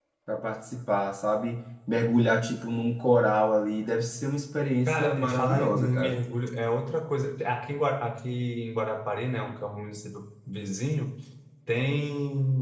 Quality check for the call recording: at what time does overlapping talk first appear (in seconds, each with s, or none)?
4.9 s